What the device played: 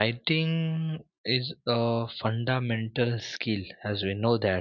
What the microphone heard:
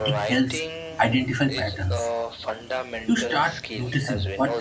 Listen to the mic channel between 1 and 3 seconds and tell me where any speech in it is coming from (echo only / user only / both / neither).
both